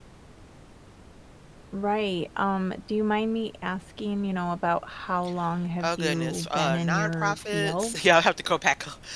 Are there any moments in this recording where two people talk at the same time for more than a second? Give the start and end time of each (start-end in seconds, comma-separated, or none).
5.8-8.0